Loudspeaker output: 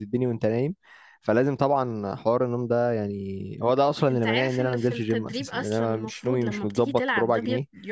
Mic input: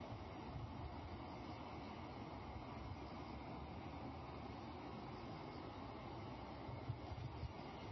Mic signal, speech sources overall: neither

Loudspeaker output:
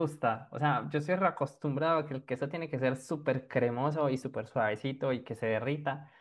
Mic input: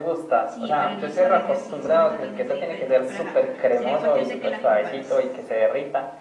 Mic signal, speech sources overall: both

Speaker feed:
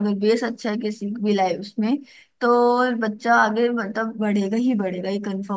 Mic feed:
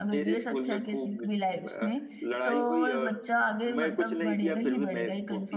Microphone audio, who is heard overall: both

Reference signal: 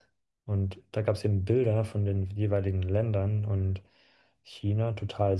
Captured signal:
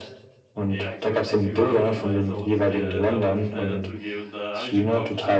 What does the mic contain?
both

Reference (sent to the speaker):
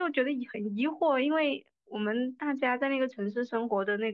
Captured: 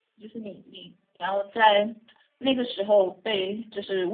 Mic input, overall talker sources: user only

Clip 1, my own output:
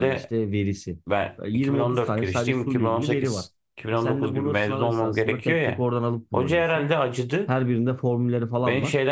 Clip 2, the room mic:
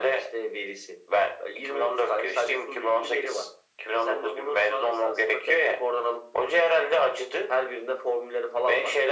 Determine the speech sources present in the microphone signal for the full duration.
echo only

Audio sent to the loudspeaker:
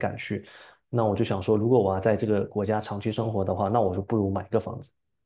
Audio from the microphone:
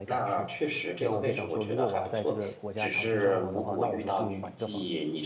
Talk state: both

